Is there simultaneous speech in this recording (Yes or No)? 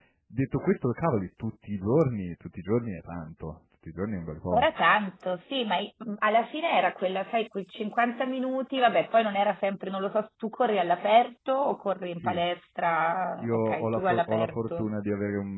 Yes